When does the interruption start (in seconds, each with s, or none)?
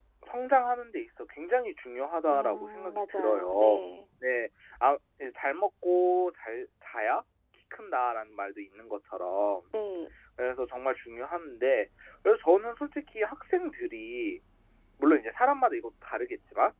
2.3 s